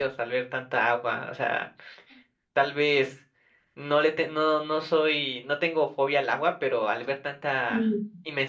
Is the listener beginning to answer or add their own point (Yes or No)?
No